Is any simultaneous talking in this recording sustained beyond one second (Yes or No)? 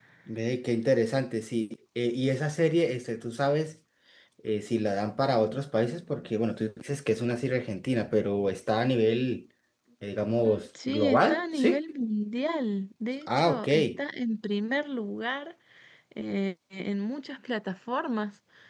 Yes